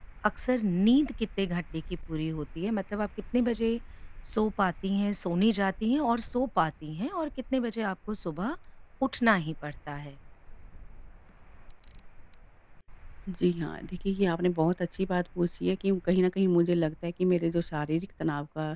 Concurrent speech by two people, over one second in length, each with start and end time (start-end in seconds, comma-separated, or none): none